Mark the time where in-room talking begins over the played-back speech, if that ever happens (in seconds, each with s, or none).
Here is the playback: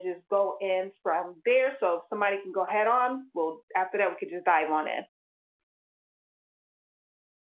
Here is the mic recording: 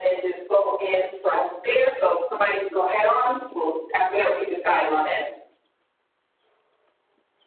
none